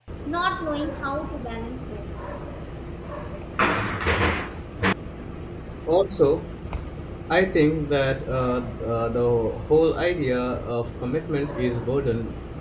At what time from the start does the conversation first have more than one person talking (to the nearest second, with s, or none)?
none